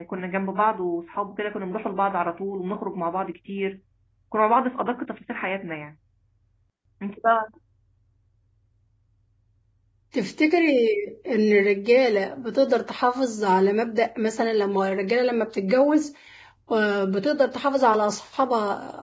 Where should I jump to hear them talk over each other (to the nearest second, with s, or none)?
none